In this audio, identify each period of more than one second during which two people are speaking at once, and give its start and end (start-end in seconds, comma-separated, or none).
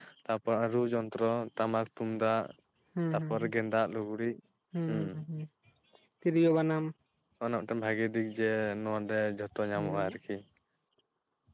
none